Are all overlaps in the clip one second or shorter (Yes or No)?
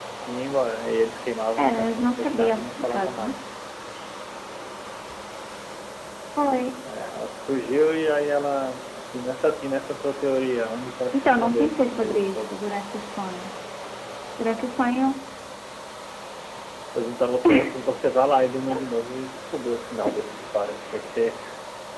No